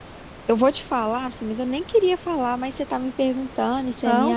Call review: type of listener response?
listening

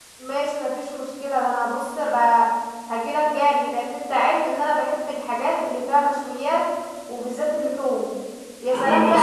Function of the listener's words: listening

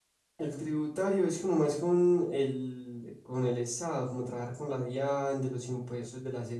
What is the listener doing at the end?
listening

